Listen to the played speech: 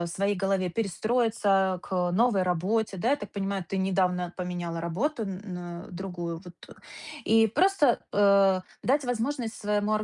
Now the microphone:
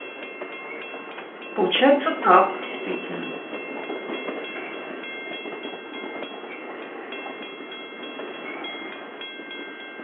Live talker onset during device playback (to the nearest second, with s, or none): 2 s